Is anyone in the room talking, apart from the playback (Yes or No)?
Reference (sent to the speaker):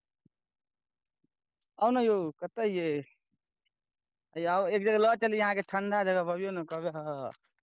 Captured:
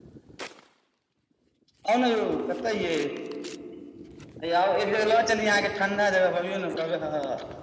No